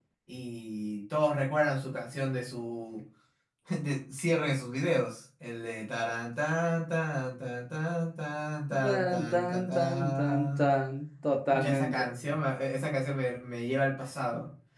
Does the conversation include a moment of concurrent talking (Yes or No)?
Yes